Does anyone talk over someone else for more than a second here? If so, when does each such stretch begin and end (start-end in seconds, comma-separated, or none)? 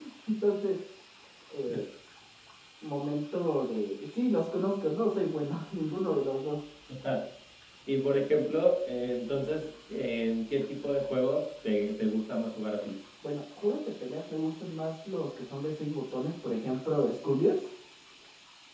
none